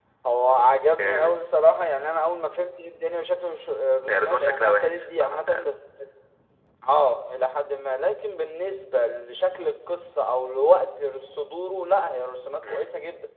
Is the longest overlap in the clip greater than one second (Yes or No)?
Yes